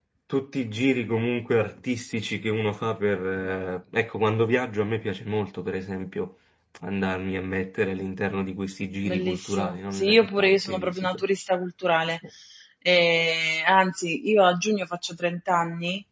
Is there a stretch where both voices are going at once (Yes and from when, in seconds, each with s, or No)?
Yes, from 9.0 s